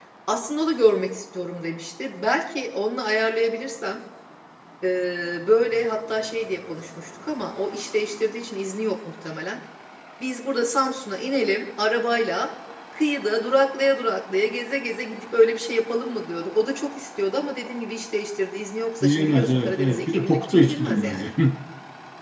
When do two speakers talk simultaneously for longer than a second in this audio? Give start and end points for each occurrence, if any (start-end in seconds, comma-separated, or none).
19.0-21.3